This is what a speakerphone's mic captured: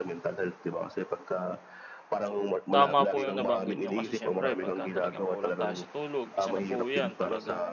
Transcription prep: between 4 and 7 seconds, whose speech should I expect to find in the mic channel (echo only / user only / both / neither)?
both